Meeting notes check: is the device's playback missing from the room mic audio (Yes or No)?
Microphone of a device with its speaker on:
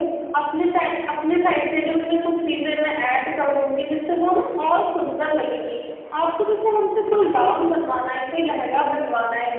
No